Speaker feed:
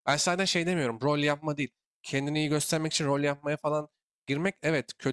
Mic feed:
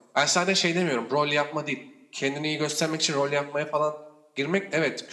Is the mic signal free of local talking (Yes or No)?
Yes